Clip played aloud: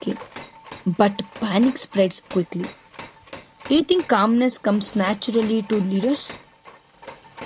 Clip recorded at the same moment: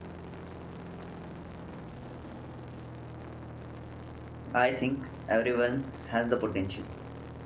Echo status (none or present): none